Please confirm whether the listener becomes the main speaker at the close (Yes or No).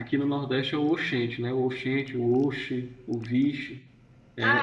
Yes